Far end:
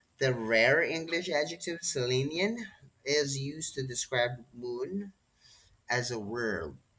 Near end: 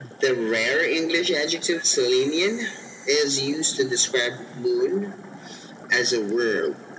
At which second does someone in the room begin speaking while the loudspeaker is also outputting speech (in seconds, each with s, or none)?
none